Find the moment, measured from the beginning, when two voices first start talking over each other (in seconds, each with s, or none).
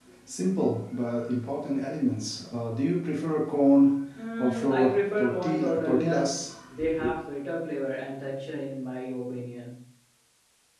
4.4 s